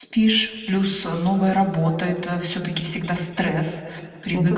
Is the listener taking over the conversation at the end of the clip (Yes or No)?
No